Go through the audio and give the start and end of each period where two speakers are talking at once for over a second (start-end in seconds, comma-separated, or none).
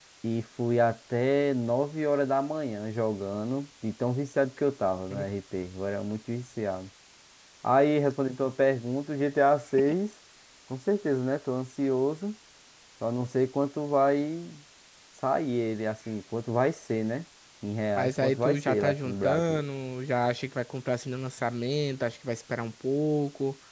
18.0-19.6